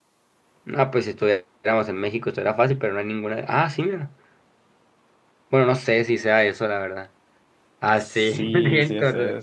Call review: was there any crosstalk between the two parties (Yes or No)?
Yes